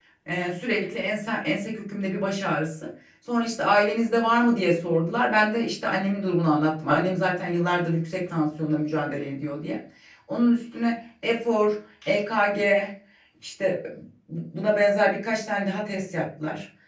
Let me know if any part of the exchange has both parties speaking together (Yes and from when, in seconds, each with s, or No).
No